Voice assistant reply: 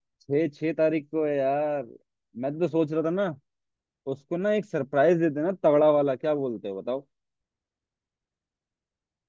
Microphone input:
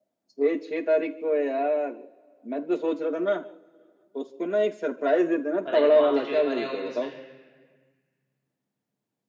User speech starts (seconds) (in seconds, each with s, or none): 5.6 s